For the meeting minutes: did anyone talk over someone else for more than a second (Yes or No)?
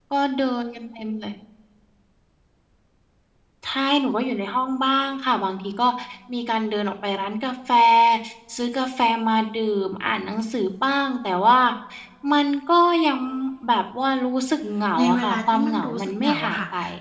Yes